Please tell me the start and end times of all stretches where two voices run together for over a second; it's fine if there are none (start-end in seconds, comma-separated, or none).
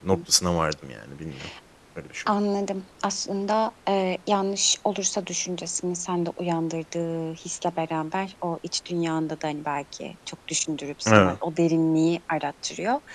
none